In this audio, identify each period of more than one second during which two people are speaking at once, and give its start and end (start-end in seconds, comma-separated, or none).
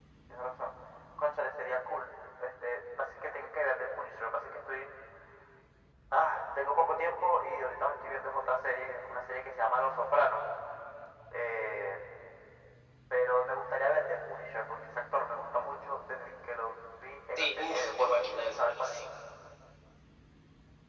17.4-18.9